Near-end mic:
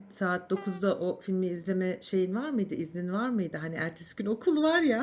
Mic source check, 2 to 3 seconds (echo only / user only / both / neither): user only